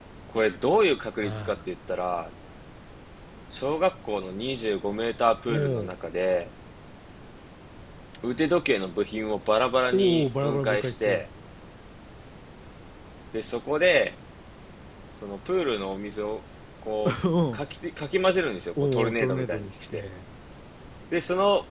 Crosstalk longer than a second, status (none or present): present